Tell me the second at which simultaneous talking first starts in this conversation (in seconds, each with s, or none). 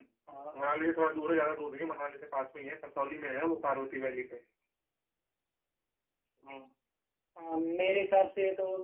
none